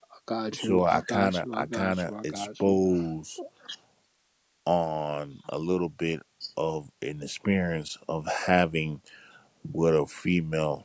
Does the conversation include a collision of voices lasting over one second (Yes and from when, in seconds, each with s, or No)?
Yes, from 0.6 s